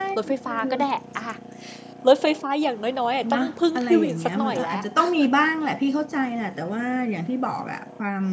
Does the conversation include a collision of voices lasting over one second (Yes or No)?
Yes